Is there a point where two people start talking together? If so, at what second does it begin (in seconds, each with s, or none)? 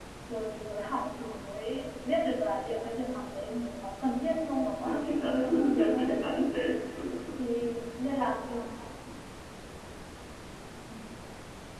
4.8 s